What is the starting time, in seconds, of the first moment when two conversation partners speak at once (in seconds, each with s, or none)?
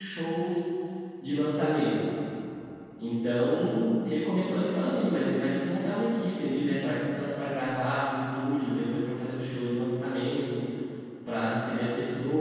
none